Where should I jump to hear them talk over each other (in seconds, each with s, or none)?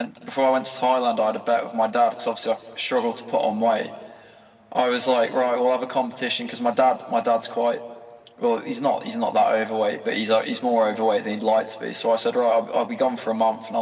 none